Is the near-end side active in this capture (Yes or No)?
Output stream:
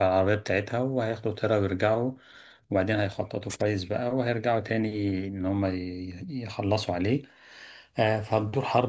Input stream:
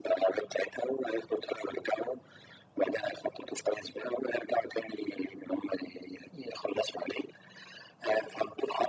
No